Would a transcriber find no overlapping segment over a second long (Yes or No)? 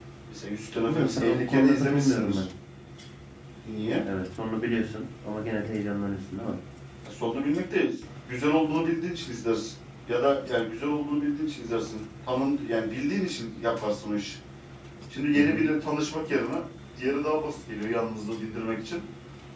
No